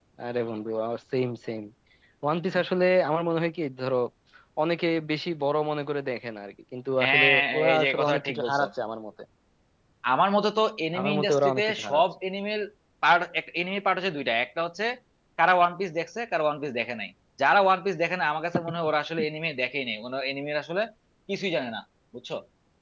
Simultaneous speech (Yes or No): Yes